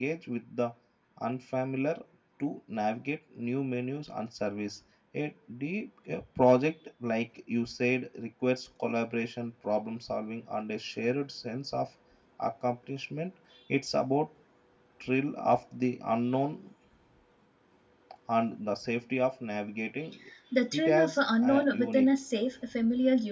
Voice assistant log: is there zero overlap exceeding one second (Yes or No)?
No